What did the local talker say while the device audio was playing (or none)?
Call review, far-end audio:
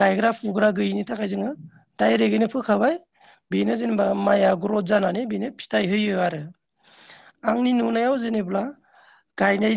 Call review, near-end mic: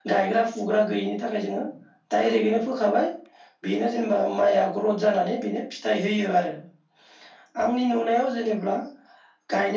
none